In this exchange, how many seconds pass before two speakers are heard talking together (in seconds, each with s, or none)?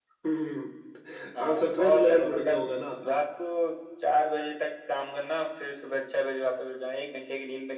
1.4 s